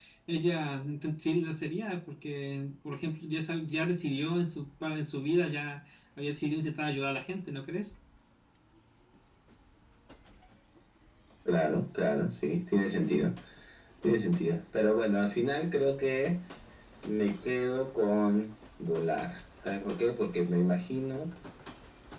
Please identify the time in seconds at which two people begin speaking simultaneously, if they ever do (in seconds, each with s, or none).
none